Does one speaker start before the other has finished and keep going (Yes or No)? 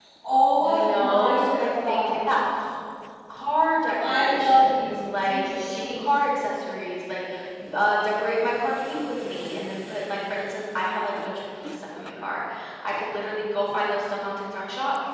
Yes